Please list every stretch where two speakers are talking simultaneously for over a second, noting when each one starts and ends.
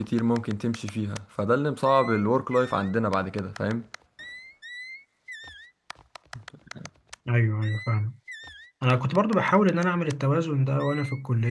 none

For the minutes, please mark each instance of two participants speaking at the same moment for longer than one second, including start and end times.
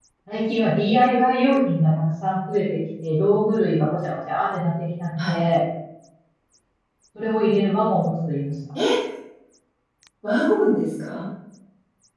none

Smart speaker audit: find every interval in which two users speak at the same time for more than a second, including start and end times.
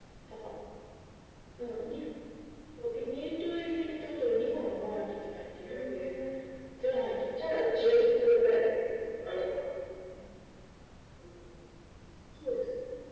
7.3-8.6

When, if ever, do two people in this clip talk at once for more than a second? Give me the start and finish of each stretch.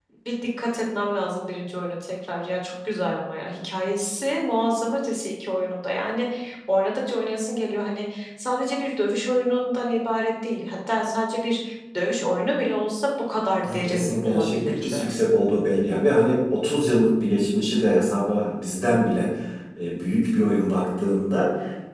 13.7-15.0

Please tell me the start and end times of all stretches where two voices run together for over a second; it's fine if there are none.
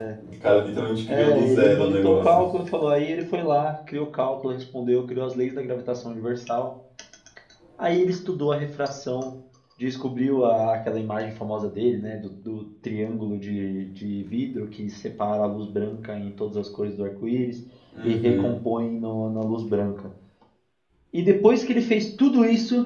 1.1-2.4

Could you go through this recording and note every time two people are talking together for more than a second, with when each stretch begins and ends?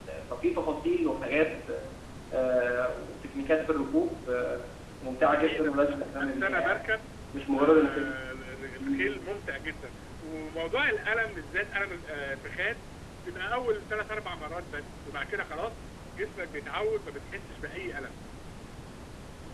5.3-6.8

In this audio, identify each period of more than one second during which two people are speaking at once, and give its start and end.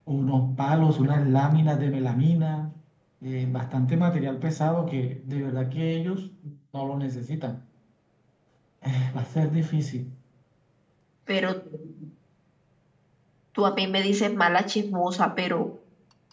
none

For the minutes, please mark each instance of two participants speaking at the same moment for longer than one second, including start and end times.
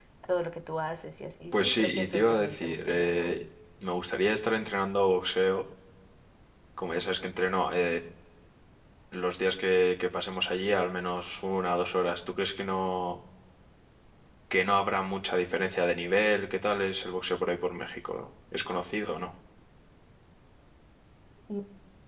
1.5-3.3

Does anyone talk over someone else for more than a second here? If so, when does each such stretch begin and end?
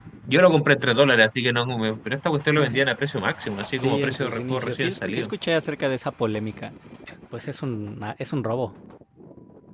3.8-5.3

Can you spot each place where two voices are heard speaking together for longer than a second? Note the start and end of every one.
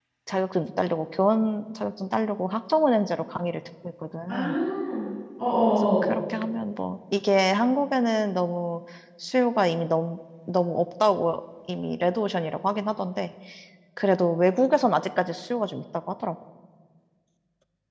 none

